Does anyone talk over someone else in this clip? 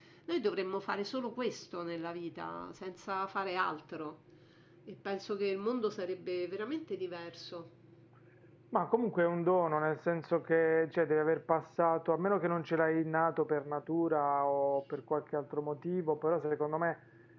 No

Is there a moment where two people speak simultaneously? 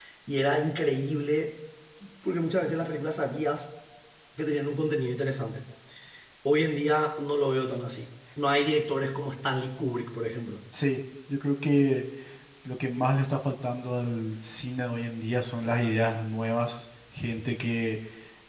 No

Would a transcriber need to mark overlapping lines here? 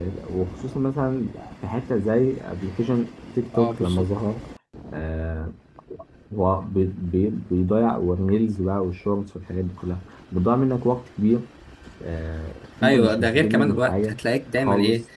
Yes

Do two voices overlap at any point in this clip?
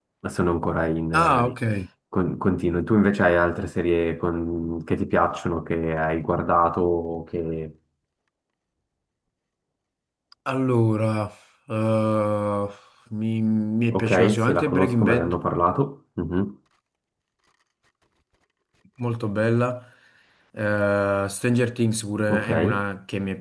Yes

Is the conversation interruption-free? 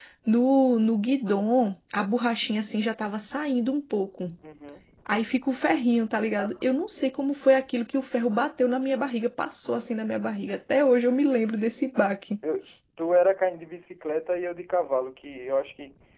Yes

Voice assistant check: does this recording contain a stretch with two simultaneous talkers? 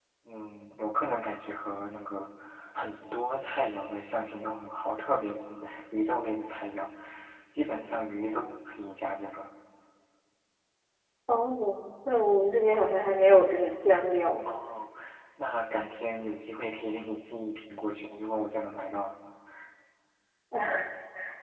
No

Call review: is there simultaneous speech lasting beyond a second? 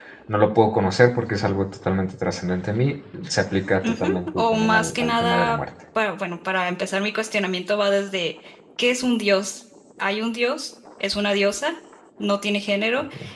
Yes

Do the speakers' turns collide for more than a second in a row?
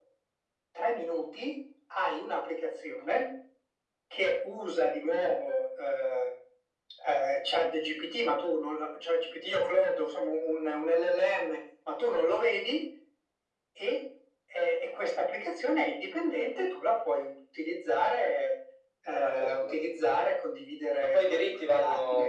Yes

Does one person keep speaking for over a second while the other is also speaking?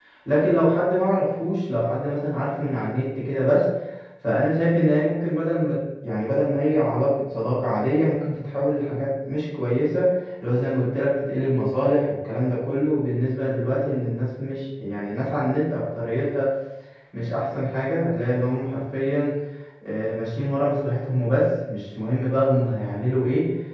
No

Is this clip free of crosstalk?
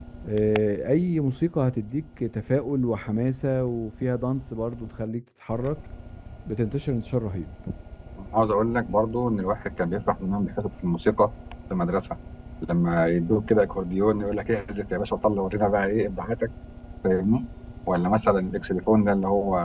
Yes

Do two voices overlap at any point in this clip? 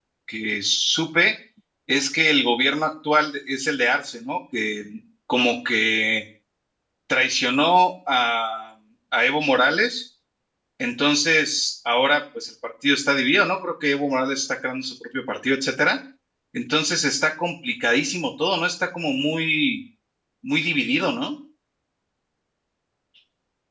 No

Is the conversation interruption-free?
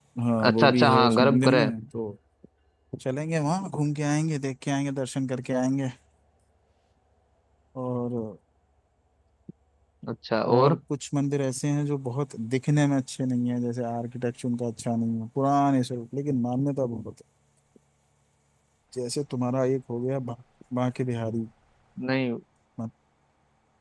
No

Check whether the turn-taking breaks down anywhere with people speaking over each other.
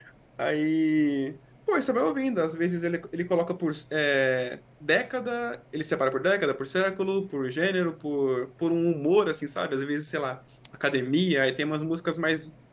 No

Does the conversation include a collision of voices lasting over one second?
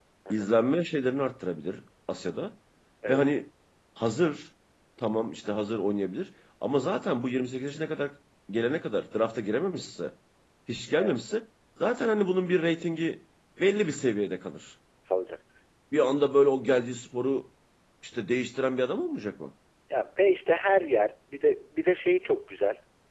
No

